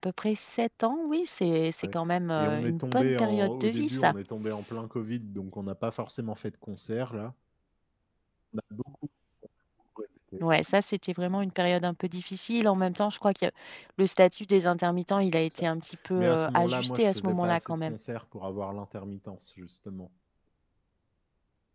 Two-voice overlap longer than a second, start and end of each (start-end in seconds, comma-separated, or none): 2.4-4.1, 16.2-17.9